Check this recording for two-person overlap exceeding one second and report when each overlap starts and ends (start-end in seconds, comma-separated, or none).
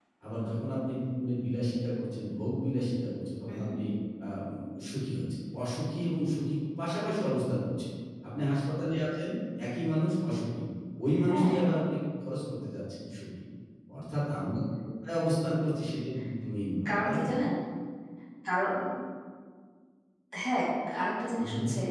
none